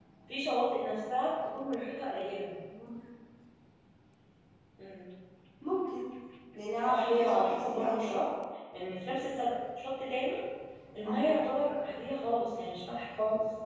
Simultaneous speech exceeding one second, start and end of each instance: 6.9-8.3

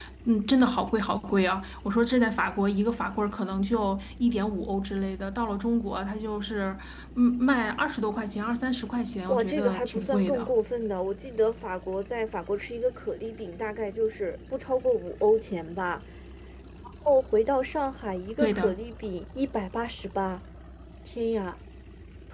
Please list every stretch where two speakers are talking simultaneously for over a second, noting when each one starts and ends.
9.3-10.5

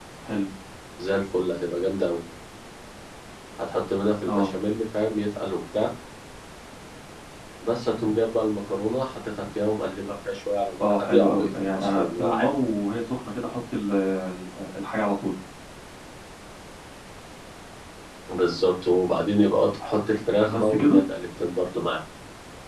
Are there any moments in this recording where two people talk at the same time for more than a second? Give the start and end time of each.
10.8-12.5

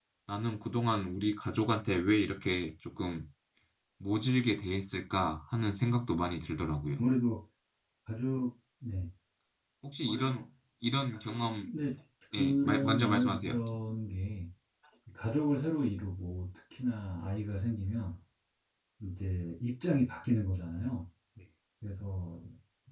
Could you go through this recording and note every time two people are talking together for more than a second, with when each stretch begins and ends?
12.3-13.5

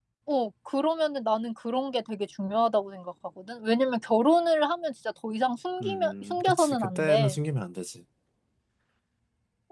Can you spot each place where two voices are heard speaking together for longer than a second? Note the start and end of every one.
5.8-7.4

